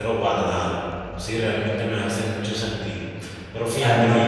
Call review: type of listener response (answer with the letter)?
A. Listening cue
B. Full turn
B